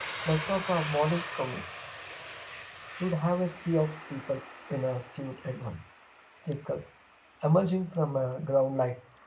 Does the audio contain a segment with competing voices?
No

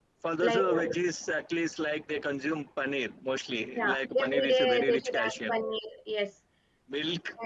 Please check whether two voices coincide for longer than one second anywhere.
Yes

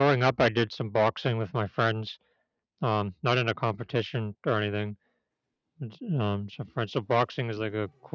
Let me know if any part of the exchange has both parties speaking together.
No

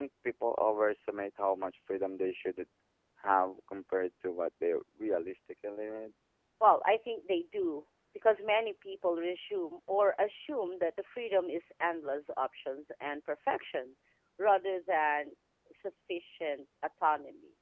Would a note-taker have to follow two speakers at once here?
No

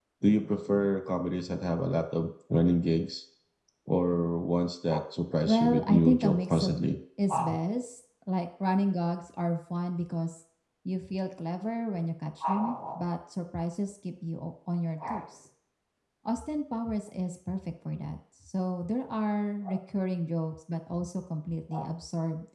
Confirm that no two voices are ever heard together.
No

